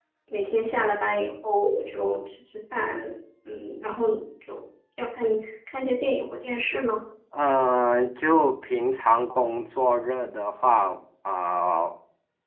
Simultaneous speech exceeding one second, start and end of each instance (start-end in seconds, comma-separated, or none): none